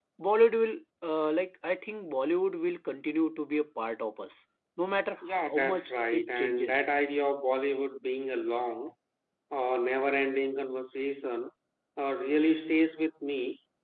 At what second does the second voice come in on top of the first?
5.4 s

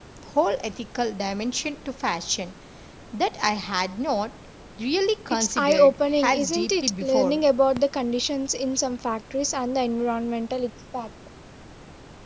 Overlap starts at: 5.3 s

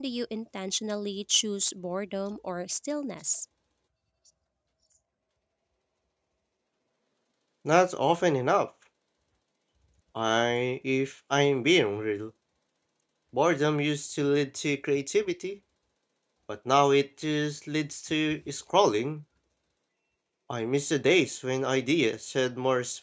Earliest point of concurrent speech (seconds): none

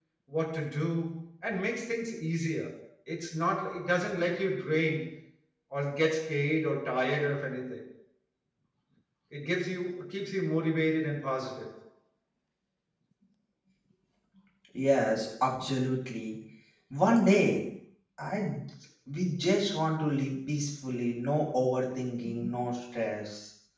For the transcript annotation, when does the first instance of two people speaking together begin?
none

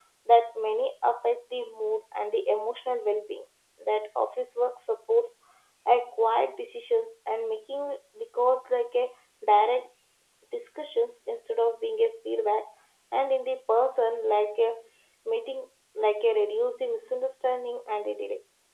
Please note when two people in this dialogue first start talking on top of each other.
none

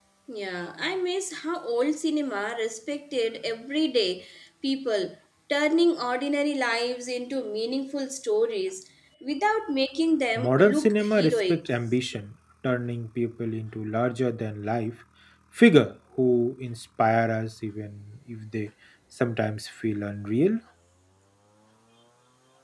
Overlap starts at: 10.4 s

